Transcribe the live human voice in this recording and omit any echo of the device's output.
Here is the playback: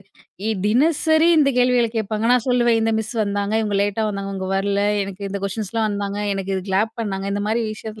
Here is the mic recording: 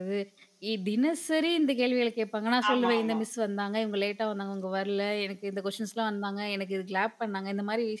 ஆமா, ஆமா.

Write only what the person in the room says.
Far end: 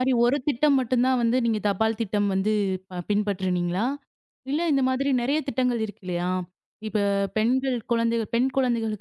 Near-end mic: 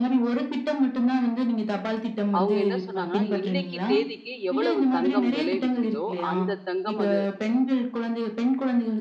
அவங்க என்ன சொன்னாங்கன்னா, இன்னைக்கு தேதிக்கு எவ்வளவு தங்கம் விலை விக்குதோ, அந்த தங்கம் அது

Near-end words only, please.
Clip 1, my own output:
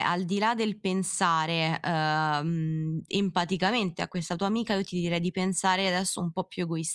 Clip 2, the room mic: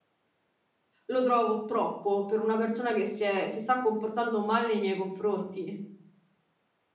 lo trovo troppo per una persona che si è si sta comportando male nei miei confronti.

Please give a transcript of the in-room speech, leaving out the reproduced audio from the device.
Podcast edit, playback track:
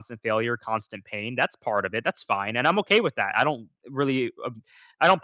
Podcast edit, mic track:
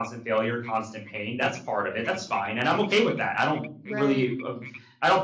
Right.

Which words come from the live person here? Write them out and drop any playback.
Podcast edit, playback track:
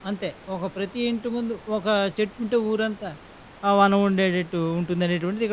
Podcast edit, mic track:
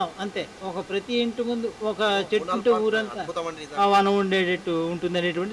ఓహ్! 3, 4 పార్కులా? అద్భుతమండి నిజంగా.

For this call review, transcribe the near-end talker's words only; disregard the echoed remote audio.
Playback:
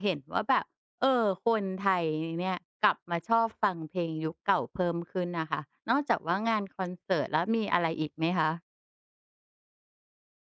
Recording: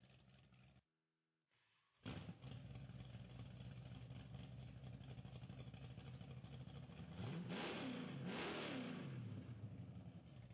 none

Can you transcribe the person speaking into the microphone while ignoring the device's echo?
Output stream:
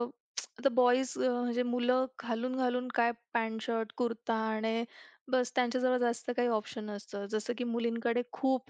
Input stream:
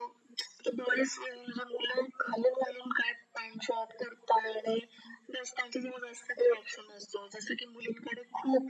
none

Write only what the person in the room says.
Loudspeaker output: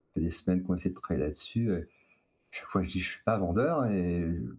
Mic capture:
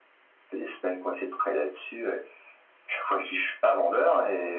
none

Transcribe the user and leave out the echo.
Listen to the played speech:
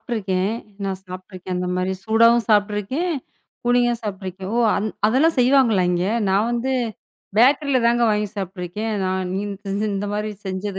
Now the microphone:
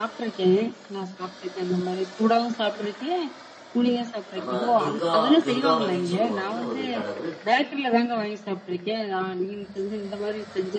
நம்ம துர்கா துர்காவதின்னு சொல்லுவாங்கல்ல ஒரு கடவுள்.

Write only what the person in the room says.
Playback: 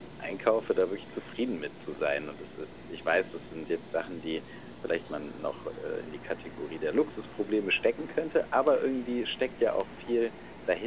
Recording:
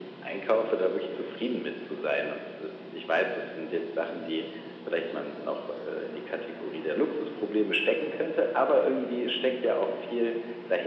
none

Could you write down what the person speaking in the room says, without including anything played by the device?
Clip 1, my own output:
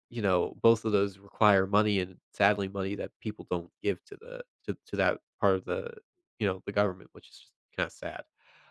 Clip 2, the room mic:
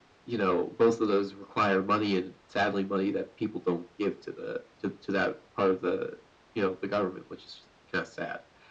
none

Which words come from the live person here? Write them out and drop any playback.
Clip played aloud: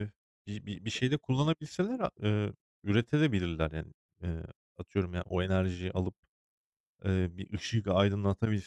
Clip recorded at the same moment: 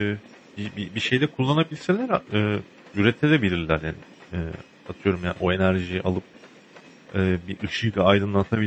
none

